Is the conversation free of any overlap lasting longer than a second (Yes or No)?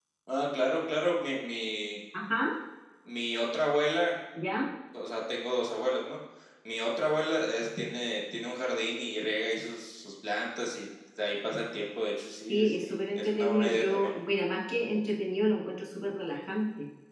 No